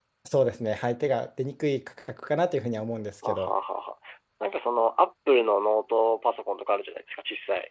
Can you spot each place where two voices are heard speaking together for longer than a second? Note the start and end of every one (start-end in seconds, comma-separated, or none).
none